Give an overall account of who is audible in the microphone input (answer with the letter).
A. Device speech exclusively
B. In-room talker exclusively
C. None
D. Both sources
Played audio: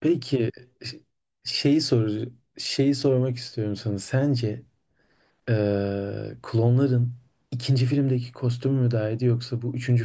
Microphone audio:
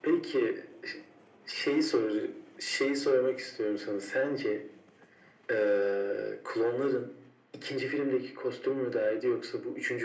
A